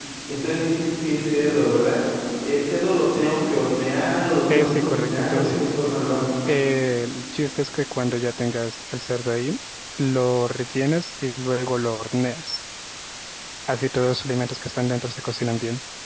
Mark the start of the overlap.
4.5 s

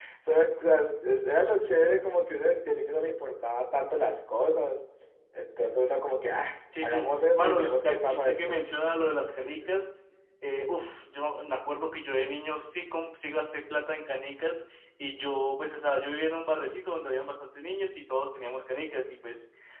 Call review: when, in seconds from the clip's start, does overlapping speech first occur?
6.7 s

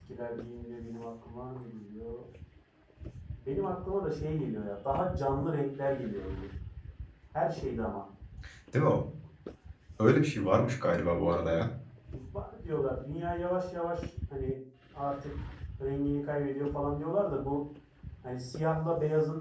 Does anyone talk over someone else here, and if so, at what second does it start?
none

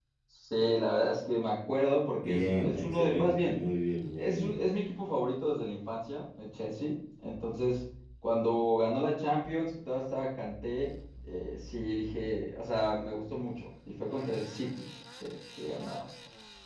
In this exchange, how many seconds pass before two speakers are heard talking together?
2.2 s

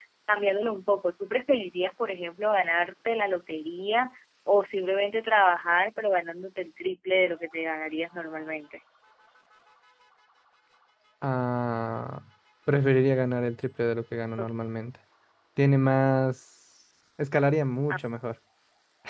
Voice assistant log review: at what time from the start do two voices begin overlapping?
none

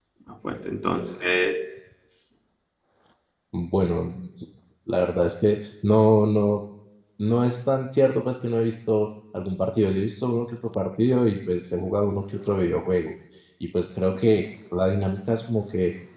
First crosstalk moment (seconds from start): none

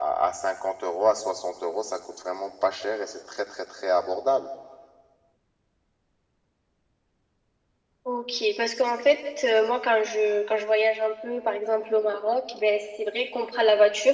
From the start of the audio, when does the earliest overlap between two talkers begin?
none

